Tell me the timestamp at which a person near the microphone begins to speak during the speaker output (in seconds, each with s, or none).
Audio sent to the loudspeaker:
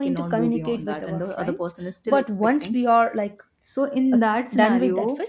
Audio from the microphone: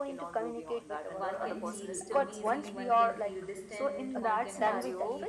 1.1 s